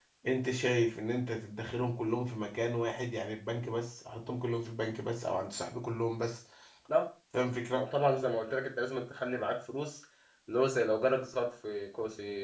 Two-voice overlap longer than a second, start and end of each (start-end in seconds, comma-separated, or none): none